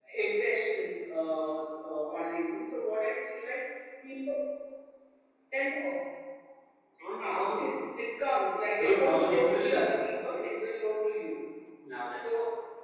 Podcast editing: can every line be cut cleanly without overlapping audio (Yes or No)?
No